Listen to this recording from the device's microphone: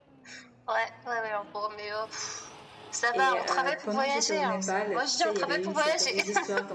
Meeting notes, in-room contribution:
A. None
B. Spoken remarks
B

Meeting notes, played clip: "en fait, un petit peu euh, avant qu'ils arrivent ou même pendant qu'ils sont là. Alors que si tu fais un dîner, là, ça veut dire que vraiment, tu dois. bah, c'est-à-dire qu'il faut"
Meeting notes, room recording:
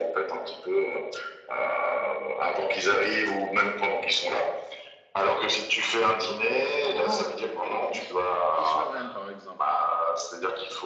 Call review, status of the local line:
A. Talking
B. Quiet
A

